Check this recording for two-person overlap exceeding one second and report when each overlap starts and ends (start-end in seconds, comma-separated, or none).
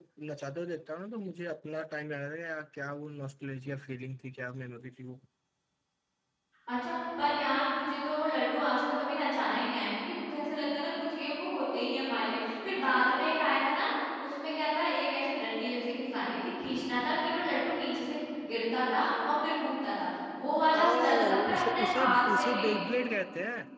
20.8-22.9